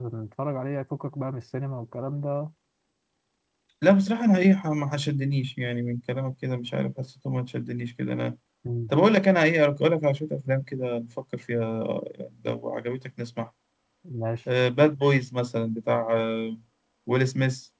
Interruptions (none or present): none